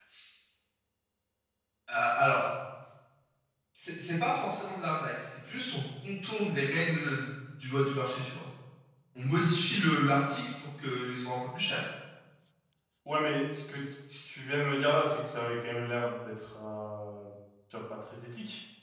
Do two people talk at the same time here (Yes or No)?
No